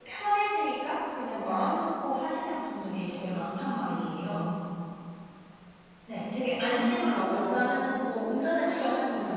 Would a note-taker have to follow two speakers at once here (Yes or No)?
Yes